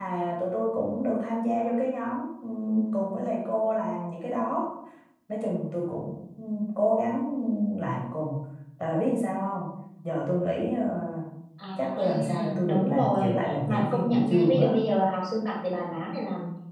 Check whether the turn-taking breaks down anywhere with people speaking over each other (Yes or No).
Yes